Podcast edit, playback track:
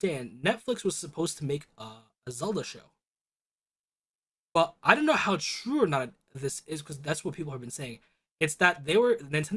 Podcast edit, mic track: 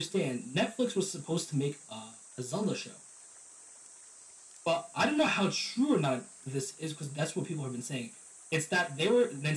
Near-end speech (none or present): none